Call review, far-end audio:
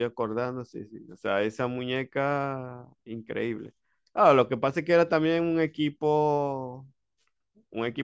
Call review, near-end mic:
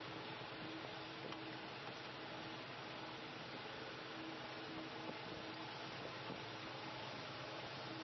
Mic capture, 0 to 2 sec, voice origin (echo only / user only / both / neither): neither